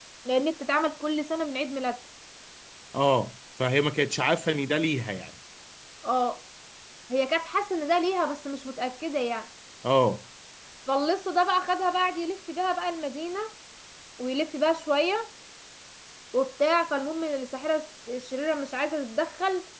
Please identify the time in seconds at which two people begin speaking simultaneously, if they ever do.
none

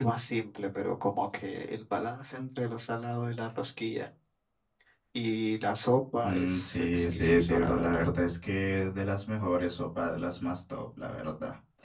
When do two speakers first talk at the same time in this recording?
6 s

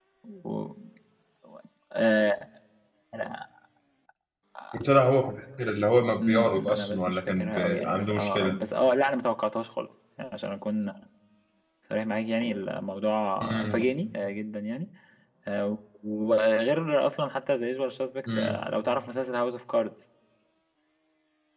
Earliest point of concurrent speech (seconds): 6 s

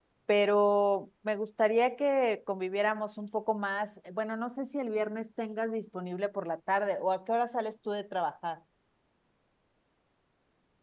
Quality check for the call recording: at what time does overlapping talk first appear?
none

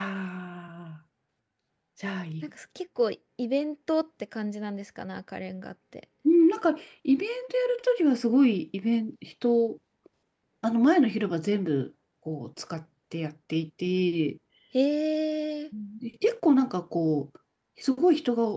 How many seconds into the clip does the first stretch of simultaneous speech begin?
none

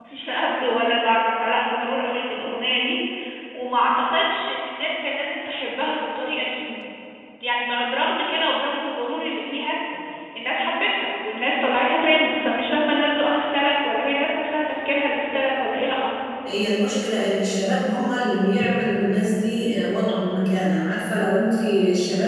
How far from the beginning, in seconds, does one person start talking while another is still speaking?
none

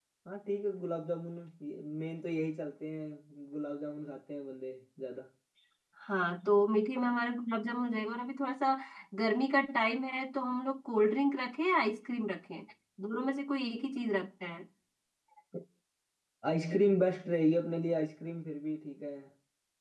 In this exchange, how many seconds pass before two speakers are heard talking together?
none

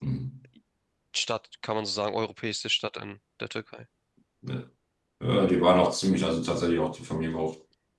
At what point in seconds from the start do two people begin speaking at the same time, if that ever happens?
none

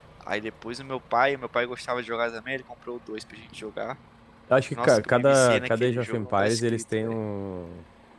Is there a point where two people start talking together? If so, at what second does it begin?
5 s

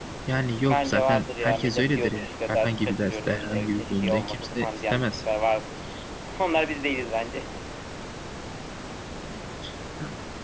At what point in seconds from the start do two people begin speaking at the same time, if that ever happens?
1 s

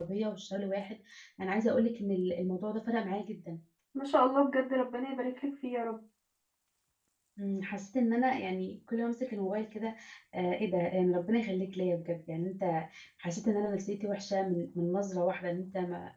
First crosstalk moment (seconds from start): none

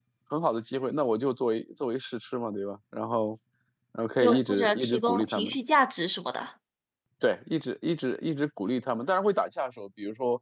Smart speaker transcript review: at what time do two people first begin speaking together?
4 s

